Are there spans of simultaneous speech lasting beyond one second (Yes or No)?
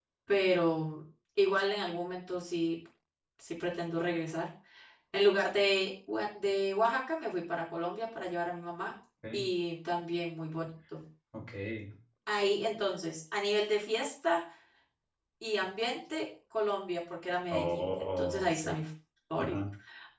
Yes